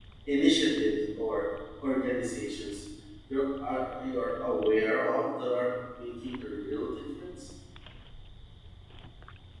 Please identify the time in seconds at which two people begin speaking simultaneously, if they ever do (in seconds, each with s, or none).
none